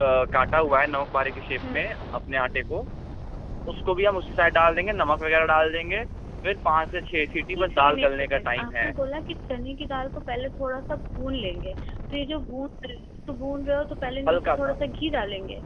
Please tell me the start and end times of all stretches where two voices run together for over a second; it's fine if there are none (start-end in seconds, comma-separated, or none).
7.6-8.9